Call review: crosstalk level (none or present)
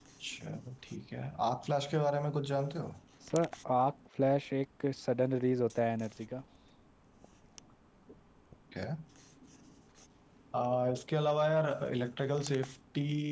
none